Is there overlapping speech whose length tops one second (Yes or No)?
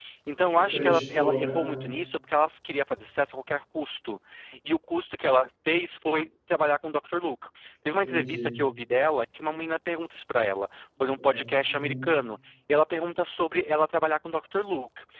Yes